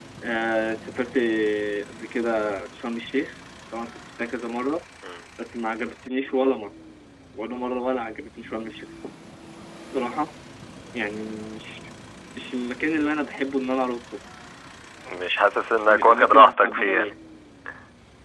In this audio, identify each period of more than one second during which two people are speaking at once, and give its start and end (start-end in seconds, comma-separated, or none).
15.8-17.1